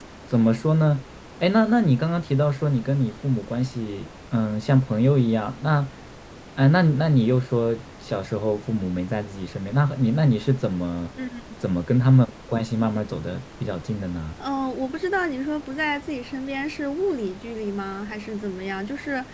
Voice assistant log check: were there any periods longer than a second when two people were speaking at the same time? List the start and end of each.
none

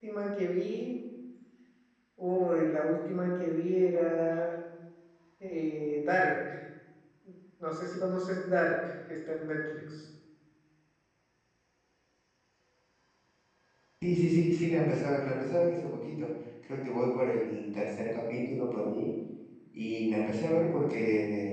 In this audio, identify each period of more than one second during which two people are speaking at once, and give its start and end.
none

